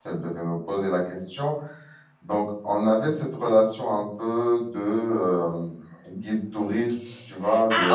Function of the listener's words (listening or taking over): taking over